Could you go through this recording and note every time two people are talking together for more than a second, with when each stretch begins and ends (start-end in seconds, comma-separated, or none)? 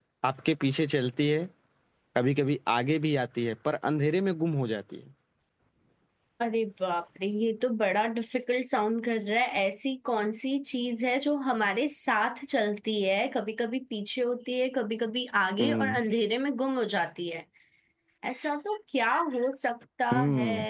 none